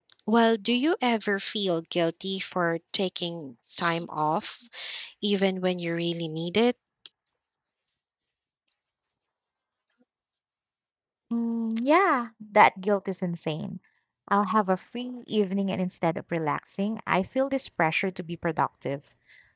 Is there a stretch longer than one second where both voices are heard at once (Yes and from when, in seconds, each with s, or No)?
No